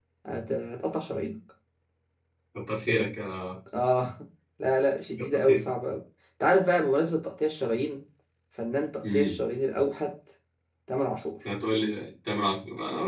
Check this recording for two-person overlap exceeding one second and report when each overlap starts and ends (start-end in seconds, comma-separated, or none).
none